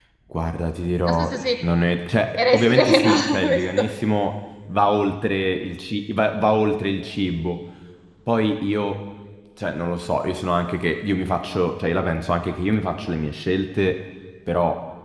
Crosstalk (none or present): present